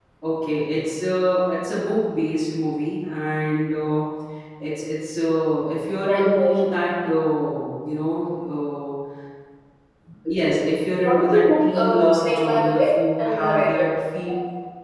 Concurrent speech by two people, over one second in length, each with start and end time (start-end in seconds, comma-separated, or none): 11.0-13.8